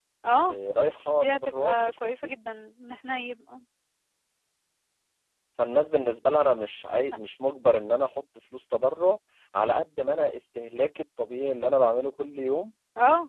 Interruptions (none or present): present